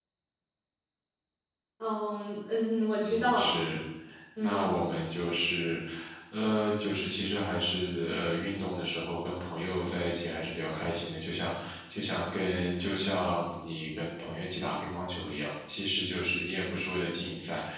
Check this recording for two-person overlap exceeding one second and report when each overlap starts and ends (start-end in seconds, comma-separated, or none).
none